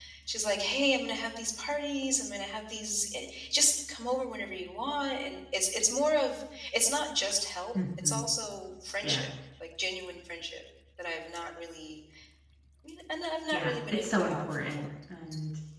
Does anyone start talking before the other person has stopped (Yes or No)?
Yes